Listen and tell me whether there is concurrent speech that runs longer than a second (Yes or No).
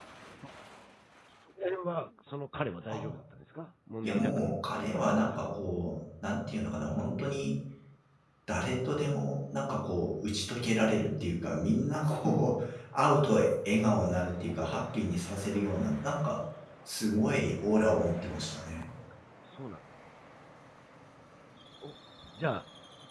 Yes